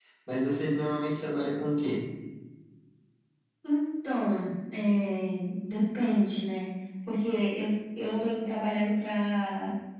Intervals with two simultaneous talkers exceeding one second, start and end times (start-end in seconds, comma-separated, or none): none